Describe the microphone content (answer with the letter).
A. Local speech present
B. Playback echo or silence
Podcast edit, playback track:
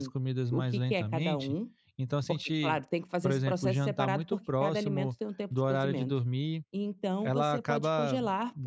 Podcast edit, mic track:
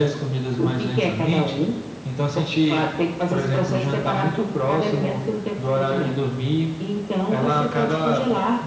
B